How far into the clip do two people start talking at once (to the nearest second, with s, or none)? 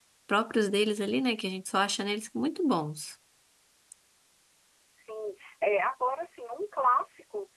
none